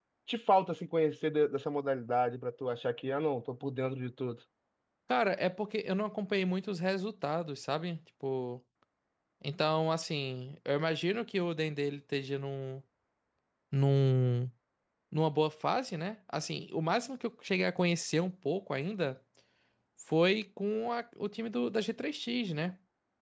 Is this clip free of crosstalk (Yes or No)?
Yes